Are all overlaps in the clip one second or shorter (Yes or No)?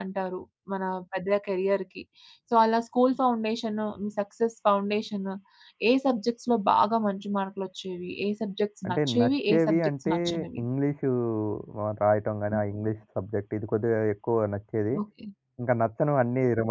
No